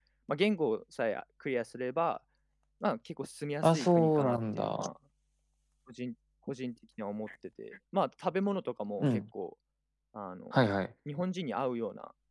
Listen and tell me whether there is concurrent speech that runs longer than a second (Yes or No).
Yes